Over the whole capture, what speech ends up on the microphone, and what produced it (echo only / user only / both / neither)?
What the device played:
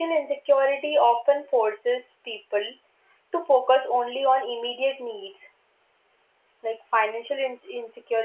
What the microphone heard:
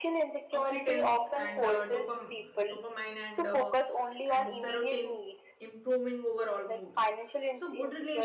both